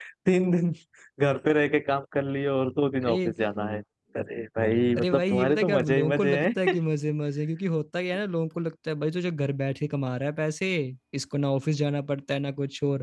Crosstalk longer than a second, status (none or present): present